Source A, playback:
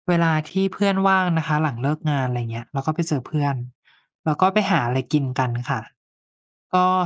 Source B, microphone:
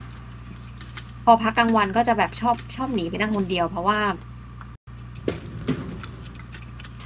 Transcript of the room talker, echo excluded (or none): พอพักกลางวันก็จะแบบชอบชอบหนีไปนั่งคนเดียวเพราะว่า